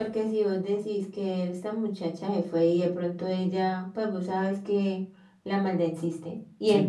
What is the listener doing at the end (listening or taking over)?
listening